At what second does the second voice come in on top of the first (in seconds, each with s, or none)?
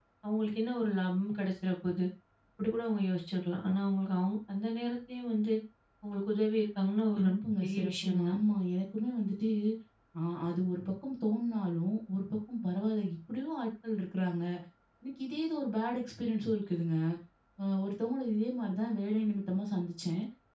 7.1 s